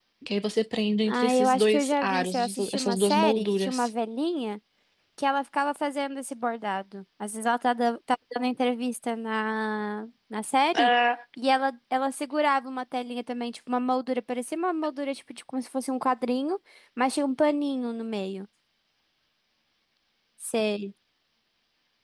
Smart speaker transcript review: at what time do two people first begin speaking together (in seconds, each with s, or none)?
1.1 s